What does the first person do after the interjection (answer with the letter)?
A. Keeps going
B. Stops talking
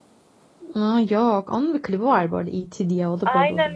B